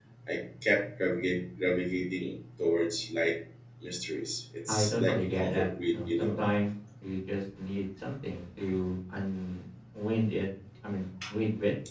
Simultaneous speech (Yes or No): Yes